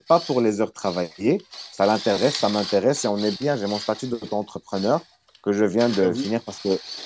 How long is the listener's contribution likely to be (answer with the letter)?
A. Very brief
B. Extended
A